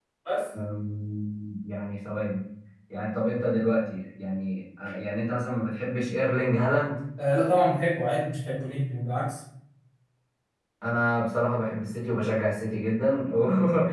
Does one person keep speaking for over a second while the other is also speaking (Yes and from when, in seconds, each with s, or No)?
No